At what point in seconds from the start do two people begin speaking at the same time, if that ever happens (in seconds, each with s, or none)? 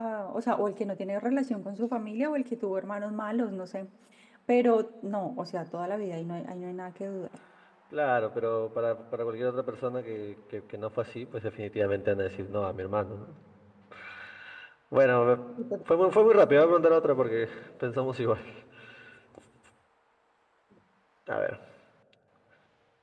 none